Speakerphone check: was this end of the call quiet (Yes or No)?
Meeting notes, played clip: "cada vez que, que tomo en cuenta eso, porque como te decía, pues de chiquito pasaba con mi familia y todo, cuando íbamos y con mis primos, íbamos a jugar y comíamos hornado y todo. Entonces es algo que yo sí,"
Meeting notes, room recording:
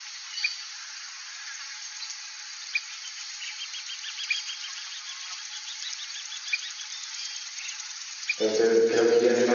No